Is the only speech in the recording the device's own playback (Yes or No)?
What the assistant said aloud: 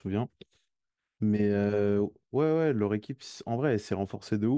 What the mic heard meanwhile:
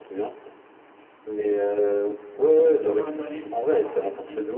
No